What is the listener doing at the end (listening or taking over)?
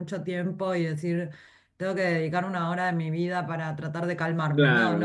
taking over